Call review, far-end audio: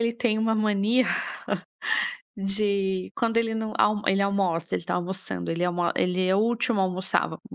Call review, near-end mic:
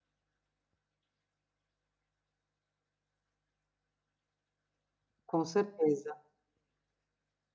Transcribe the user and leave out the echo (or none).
Com certeza.